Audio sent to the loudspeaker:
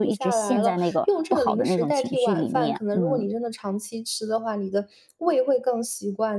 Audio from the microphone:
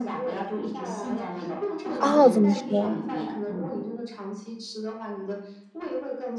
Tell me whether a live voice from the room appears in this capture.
Yes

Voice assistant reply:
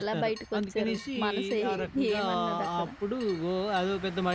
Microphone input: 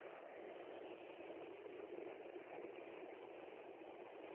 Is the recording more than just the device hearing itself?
No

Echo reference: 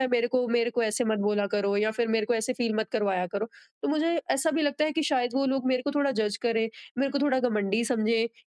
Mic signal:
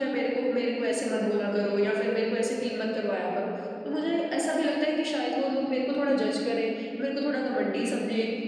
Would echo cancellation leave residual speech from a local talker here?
No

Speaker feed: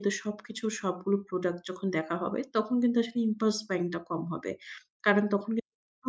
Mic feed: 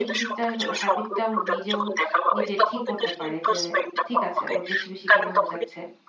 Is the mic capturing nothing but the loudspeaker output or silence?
No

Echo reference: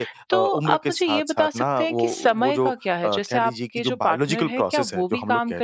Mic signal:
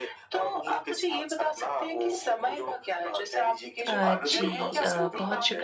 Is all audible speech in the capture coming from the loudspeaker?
No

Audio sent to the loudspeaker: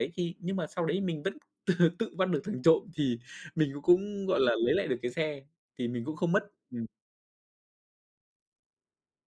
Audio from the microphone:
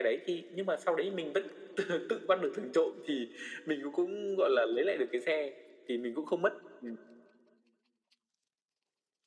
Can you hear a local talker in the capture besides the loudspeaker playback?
No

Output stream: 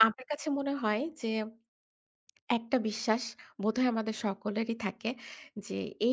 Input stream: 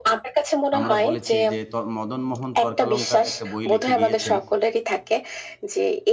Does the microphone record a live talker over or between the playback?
Yes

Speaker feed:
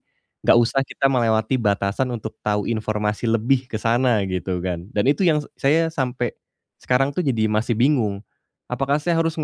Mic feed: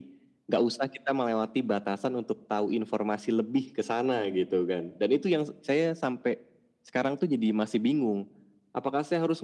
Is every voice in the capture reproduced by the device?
Yes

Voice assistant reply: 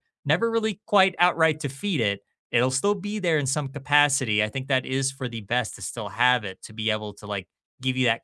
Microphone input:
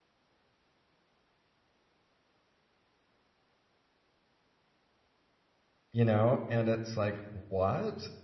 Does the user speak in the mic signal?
Yes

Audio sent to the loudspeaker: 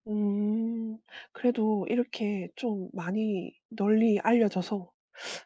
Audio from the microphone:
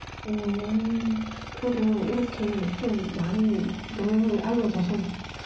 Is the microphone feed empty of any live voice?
Yes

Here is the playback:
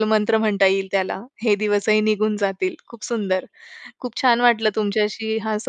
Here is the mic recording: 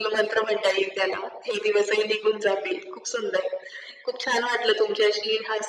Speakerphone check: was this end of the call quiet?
Yes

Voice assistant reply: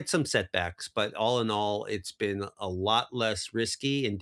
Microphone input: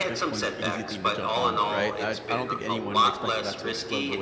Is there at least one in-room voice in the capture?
Yes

